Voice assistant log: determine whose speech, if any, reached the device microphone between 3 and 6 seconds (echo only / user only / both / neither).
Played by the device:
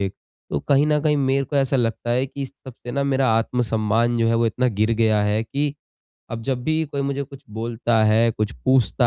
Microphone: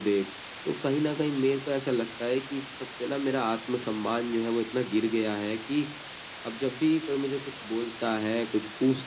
echo only